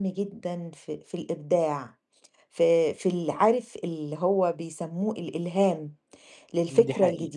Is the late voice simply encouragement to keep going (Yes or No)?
Yes